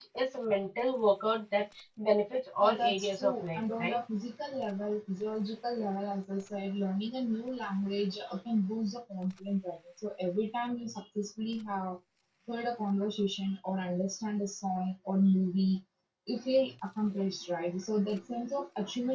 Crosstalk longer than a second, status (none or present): present